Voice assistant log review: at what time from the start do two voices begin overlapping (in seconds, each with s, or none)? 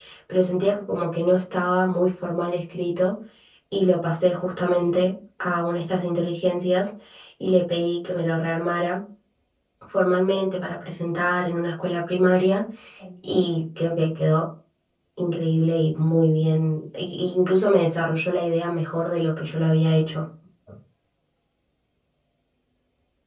none